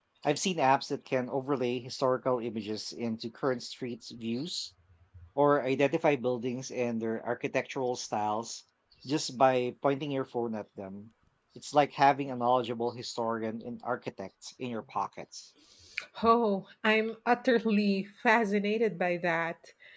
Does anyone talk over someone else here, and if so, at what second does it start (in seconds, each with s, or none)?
none